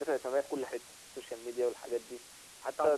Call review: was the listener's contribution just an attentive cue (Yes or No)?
No